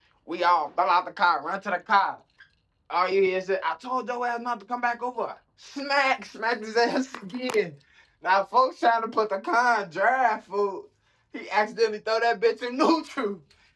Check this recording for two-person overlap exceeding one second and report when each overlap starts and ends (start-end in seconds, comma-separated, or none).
none